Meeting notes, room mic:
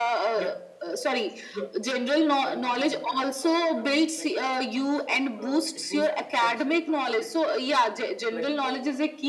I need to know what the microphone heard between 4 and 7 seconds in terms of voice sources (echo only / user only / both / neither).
both